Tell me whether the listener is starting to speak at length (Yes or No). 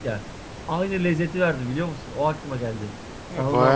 Yes